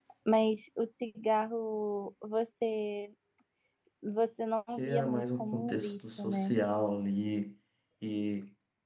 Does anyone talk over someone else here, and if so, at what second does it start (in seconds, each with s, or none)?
4.8 s